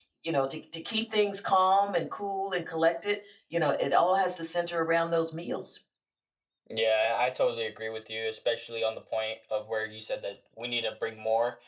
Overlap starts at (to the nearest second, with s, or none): none